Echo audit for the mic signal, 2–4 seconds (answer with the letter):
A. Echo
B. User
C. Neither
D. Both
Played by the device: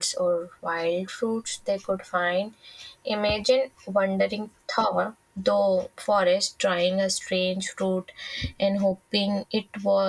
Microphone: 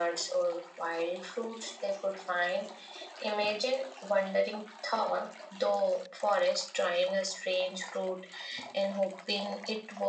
A